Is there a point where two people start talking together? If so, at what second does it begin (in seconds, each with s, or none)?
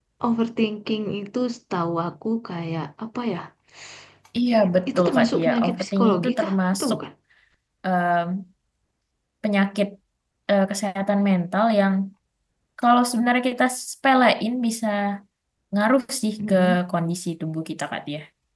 4.9 s